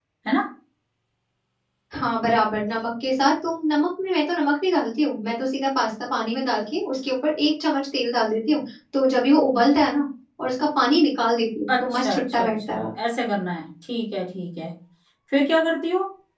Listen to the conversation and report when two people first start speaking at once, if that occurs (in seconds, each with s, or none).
11.7 s